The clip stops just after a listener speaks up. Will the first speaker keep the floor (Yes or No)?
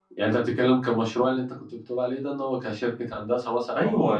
No